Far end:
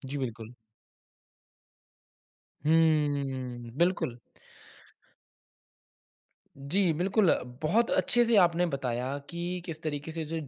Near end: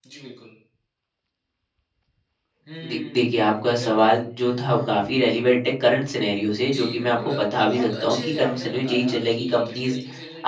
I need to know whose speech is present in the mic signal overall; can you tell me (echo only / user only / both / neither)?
both